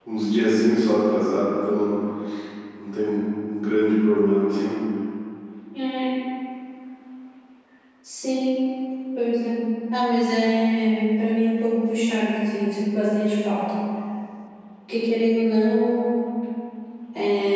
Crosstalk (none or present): none